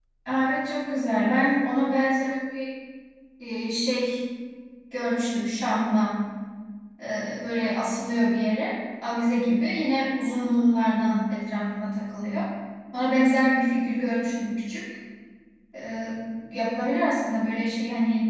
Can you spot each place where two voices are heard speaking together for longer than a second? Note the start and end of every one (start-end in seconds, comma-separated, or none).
0.9-2.2